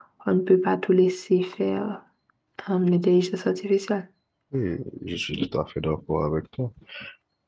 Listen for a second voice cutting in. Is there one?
No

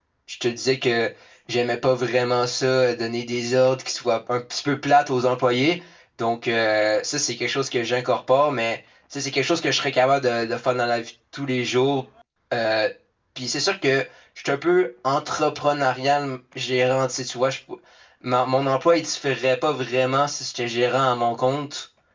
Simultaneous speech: No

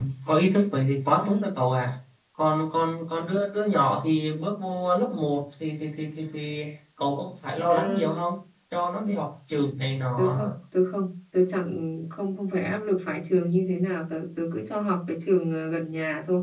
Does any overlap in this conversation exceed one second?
No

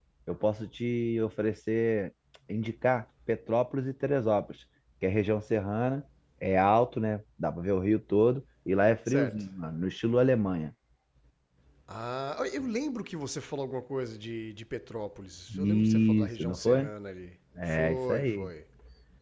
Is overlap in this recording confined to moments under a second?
No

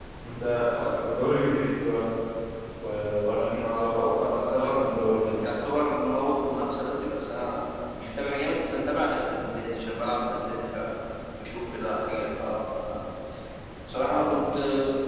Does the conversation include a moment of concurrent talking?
Yes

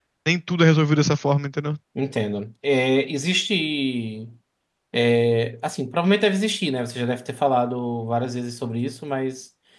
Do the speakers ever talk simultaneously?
No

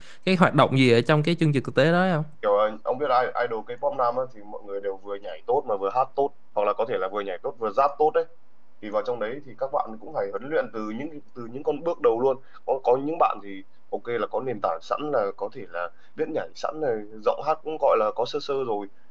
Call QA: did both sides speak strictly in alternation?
Yes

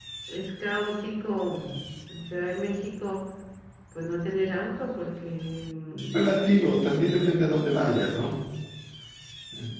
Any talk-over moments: No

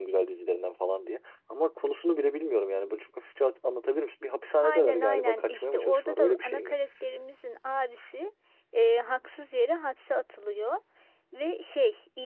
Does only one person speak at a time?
No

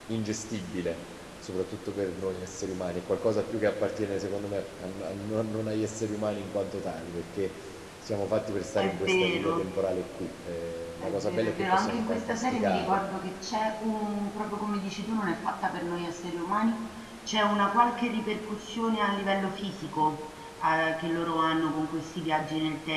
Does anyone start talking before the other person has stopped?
Yes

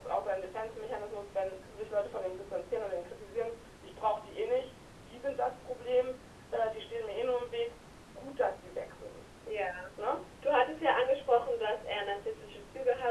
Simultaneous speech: No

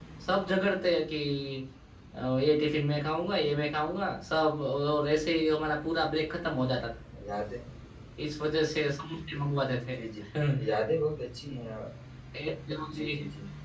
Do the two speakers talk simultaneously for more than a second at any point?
No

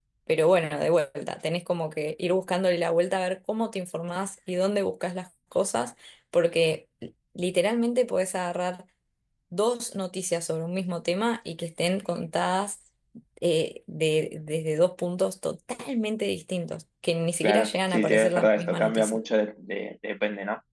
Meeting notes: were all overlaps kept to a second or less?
No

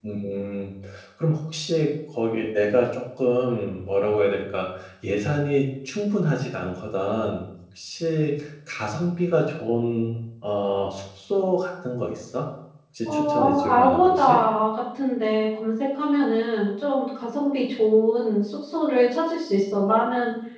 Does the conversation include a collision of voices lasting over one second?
Yes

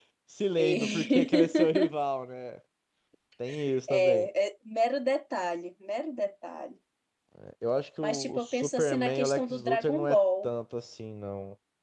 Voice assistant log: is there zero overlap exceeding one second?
No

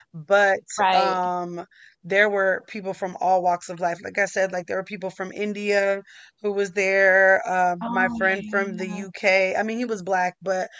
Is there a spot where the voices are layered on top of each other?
Yes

